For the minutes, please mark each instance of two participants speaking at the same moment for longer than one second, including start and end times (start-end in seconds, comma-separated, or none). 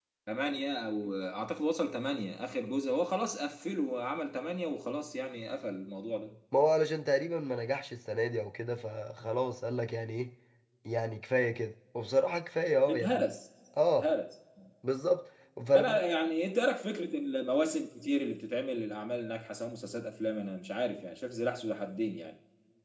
none